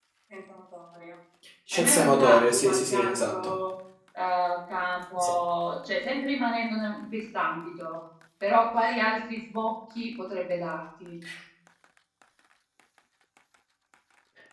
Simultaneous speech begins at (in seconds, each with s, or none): 1.7 s